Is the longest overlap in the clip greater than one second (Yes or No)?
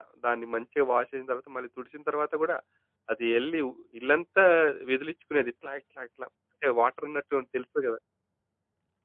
No